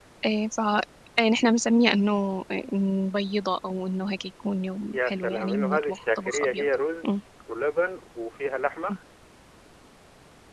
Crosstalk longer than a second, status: present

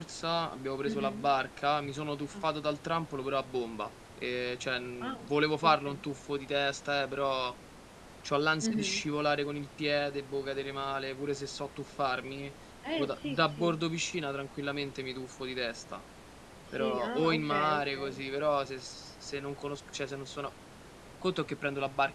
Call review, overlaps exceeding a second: present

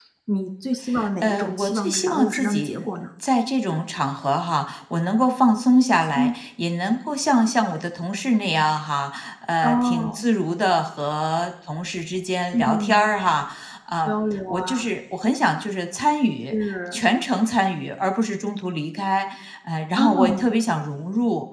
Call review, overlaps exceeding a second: present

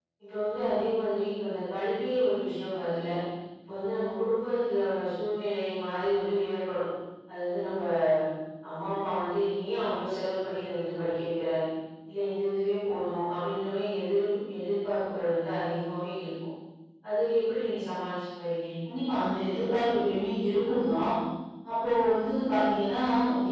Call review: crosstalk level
none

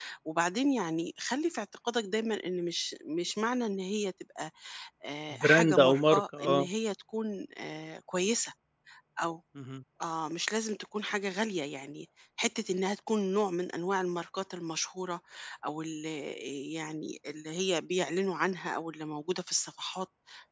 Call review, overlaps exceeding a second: present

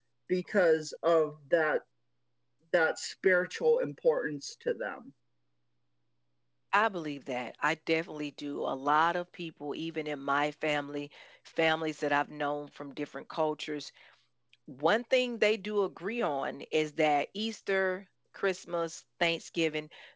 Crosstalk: none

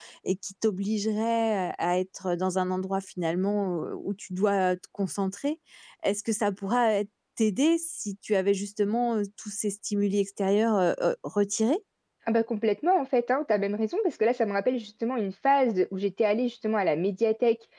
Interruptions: none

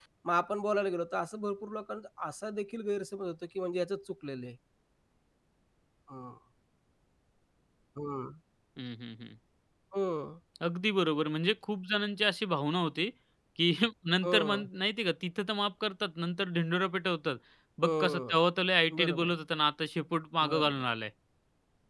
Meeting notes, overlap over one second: none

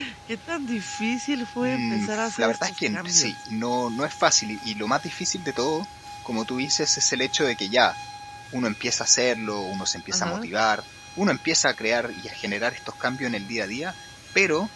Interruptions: present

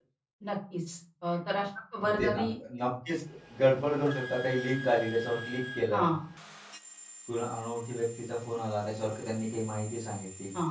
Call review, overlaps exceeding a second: none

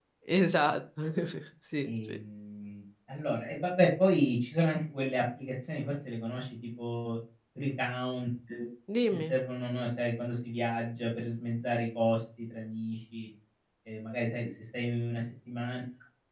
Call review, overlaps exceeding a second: none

